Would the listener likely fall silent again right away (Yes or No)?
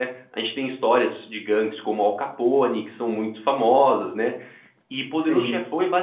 Yes